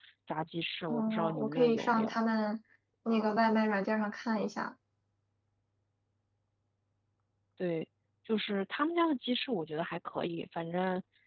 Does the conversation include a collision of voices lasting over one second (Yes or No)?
Yes